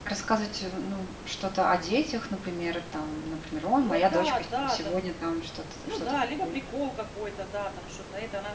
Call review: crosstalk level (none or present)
present